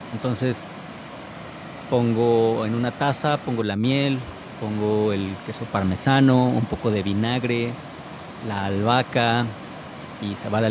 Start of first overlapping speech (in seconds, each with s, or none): none